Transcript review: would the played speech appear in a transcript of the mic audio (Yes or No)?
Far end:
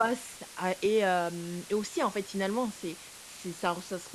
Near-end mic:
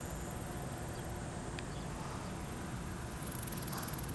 No